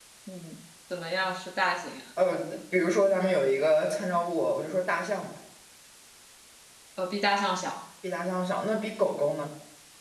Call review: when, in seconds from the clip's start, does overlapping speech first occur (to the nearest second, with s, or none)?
none